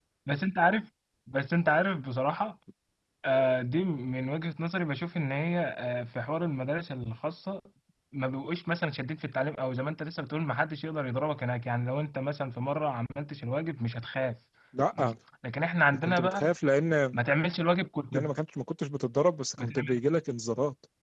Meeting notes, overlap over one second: none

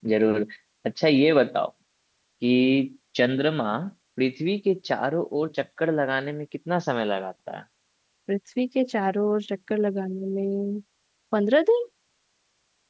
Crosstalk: none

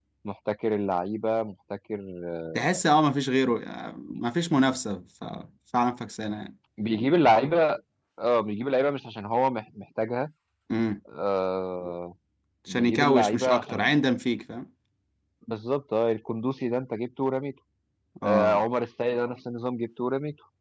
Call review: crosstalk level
present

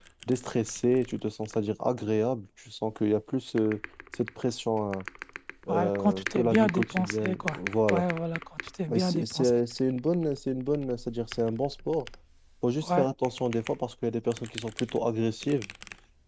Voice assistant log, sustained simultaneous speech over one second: present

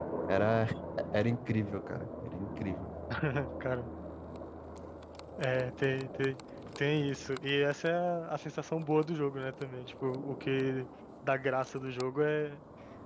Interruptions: none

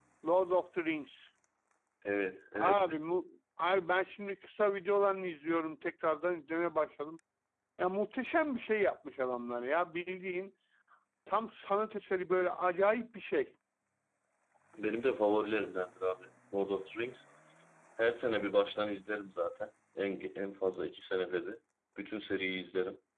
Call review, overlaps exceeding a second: none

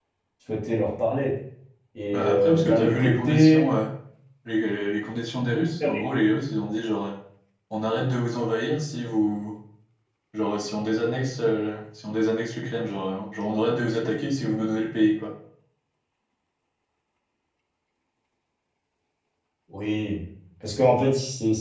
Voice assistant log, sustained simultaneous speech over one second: present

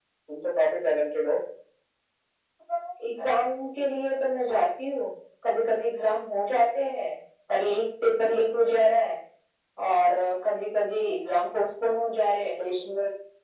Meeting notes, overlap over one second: none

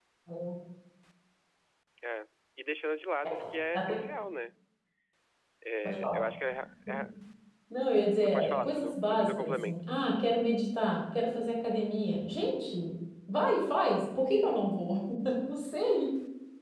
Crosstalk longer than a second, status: present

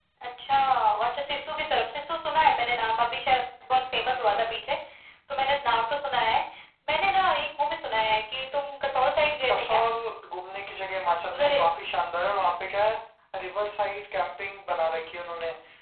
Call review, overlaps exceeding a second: none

